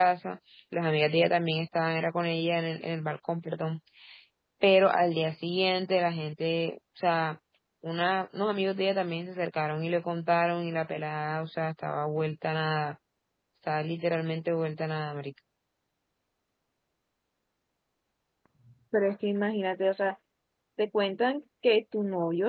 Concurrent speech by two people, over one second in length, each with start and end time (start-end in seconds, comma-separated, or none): none